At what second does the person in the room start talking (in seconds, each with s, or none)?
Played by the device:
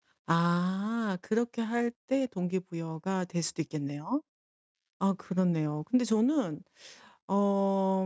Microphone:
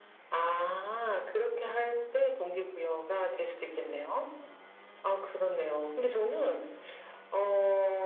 none